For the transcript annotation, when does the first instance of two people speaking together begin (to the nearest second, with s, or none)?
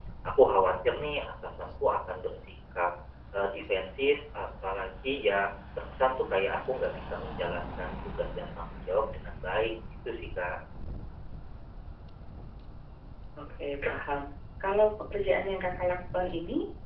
none